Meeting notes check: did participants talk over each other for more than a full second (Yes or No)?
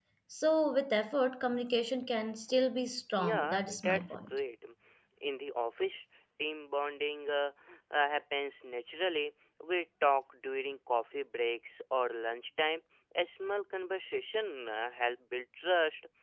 Yes